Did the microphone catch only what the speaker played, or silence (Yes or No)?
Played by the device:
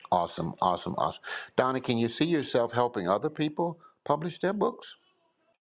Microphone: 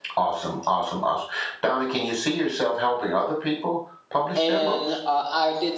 No